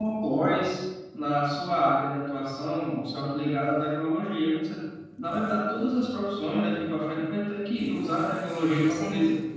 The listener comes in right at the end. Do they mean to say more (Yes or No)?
No